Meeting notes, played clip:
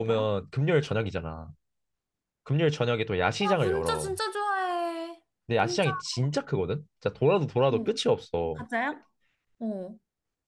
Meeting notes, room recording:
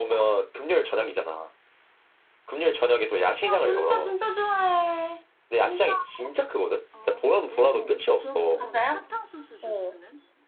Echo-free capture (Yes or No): No